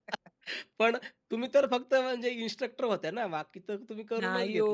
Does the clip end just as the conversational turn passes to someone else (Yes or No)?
Yes